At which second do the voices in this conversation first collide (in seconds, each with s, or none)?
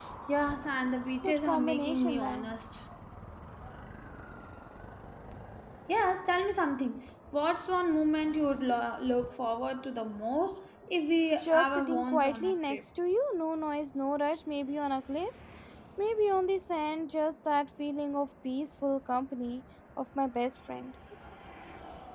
1.2 s